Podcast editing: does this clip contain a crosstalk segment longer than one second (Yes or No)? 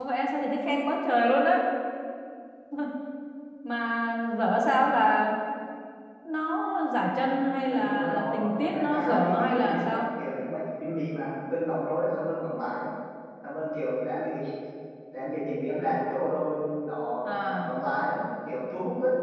Yes